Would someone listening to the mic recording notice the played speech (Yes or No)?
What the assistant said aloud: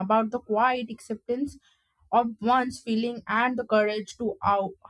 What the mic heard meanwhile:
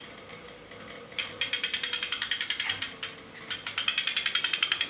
No